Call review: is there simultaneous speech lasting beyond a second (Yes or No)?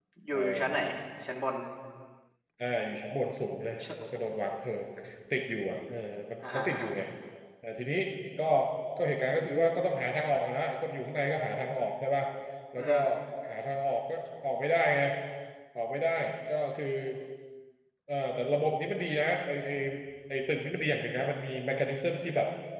No